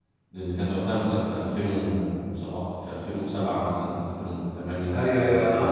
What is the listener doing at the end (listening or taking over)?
taking over